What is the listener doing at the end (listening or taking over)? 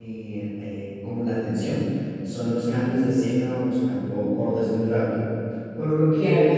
listening